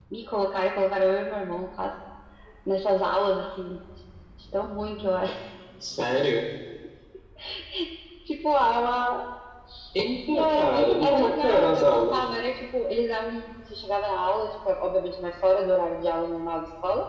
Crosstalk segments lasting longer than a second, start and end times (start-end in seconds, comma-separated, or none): 10.3-12.3